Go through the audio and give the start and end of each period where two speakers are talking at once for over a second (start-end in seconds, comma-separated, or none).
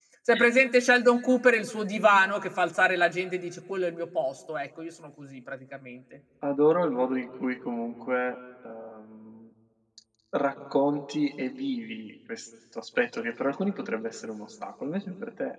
none